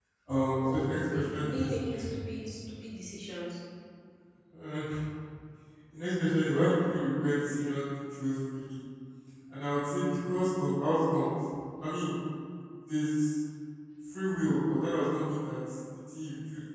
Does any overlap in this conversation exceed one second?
Yes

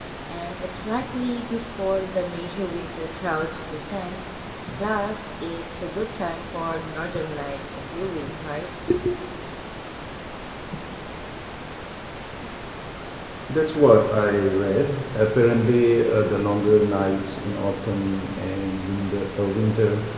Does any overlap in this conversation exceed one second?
No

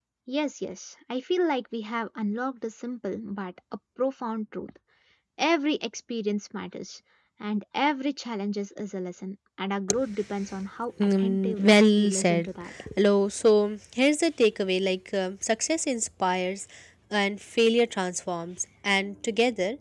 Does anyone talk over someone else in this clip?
Yes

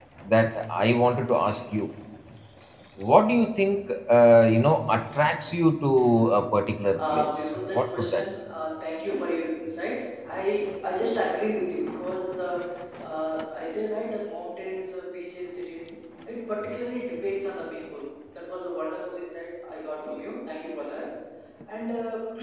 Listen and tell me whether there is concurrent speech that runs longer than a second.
Yes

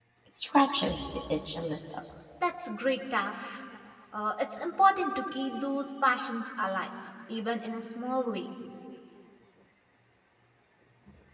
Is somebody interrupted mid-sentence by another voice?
No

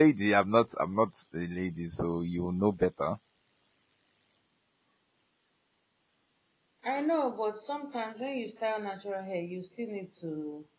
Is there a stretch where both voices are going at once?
No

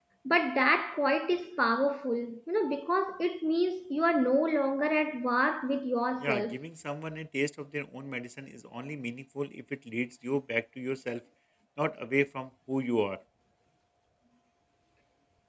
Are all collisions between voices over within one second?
Yes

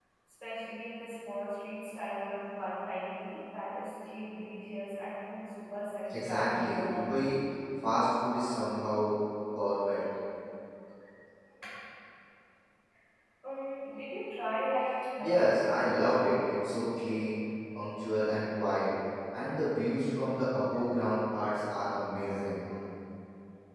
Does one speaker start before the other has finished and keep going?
Yes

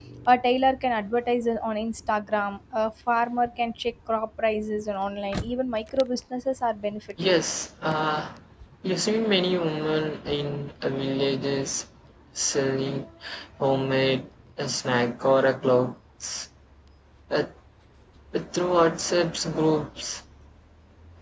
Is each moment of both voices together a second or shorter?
Yes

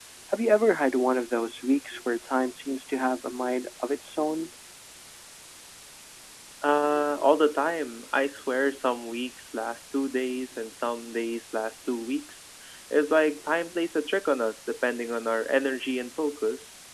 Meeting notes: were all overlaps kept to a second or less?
Yes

